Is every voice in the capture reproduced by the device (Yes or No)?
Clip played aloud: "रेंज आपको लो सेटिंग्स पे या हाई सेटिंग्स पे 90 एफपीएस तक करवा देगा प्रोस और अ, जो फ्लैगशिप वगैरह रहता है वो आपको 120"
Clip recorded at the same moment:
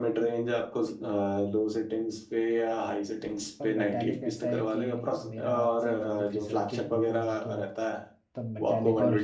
No